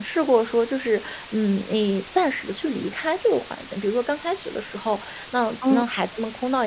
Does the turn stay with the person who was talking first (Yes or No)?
Yes